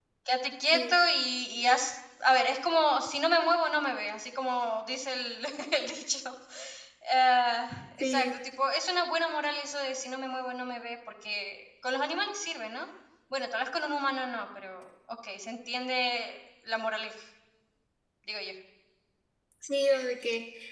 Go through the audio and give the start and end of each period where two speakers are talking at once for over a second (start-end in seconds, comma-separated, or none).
none